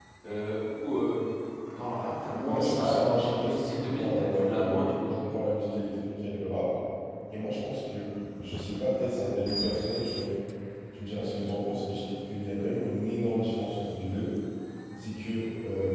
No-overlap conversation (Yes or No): No